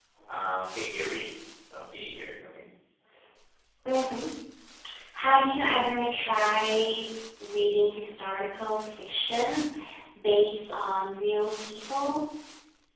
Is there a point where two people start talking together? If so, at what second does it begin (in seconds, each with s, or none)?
none